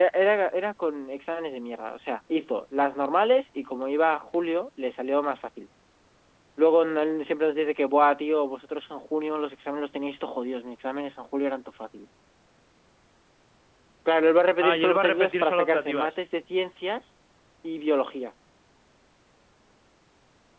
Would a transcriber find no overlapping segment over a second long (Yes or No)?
No